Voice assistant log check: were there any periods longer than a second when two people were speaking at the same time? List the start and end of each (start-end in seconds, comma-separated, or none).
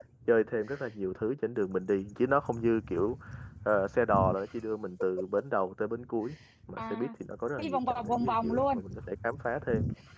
7.6-8.8